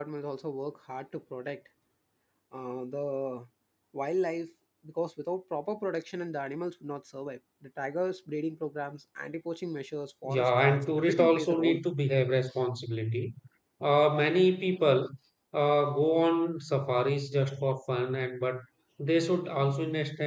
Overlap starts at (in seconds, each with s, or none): 10.2 s